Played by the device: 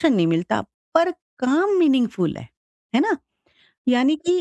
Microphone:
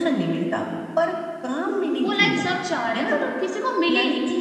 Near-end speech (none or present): present